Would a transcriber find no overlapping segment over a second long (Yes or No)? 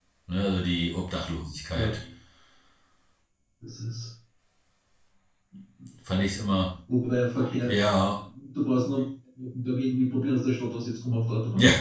Yes